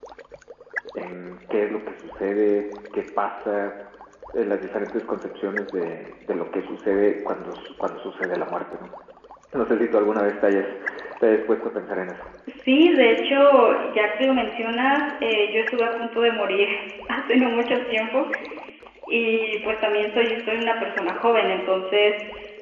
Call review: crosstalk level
none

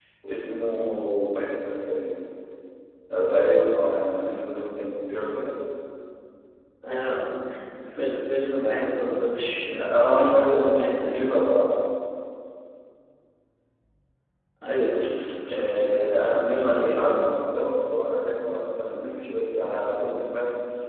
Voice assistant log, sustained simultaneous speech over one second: present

